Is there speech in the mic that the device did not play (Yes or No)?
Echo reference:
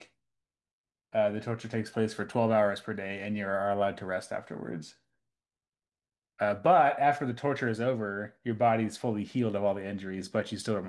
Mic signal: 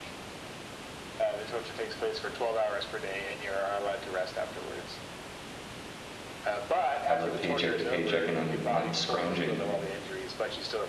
Yes